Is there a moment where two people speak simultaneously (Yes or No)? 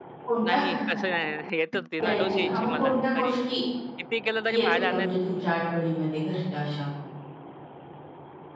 Yes